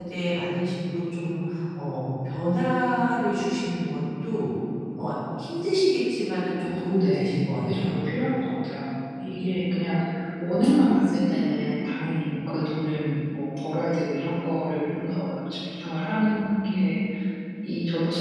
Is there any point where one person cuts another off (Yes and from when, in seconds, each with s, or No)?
Yes, from 6.6 s